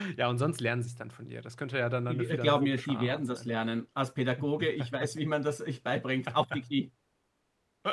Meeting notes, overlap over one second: present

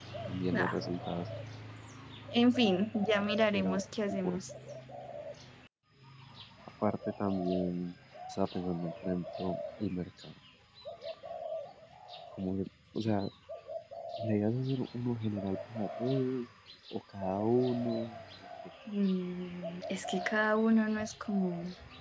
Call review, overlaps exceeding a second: none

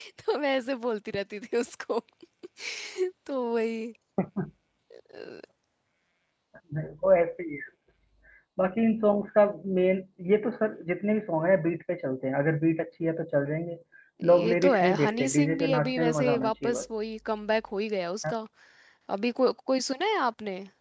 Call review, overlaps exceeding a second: present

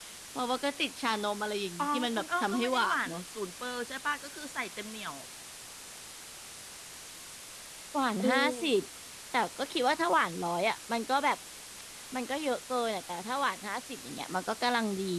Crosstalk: present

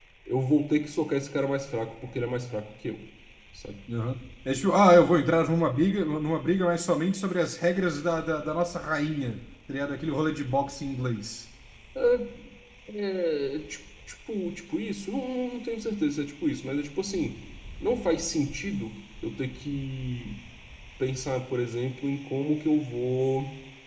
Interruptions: none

